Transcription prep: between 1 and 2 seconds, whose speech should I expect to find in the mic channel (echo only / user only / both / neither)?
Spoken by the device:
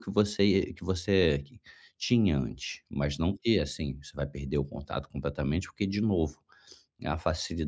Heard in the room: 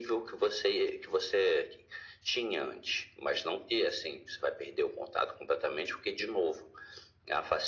echo only